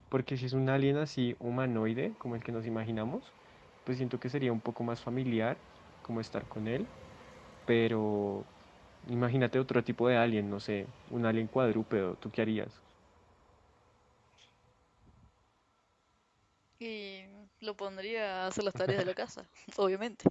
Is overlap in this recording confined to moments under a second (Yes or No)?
Yes